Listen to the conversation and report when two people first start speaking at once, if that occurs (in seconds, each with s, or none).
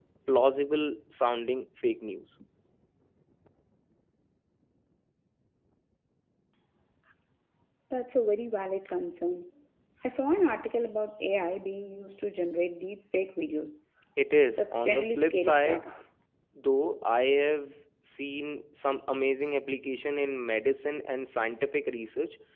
14.6 s